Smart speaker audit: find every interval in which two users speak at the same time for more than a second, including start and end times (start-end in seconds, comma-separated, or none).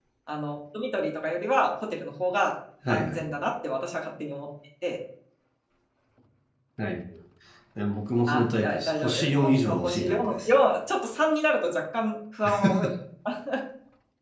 8.3-10.5